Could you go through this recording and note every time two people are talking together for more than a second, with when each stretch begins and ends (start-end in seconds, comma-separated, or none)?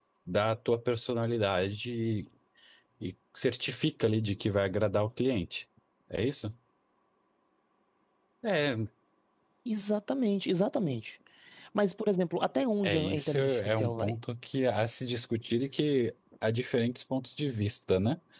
12.8-14.1